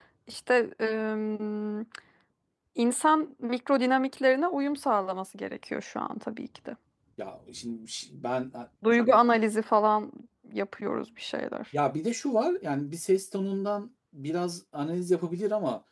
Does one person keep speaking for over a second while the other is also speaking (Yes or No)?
No